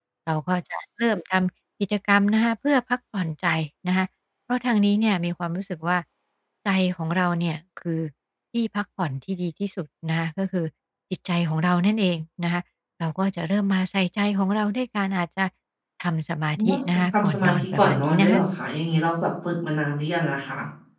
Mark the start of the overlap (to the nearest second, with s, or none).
17 s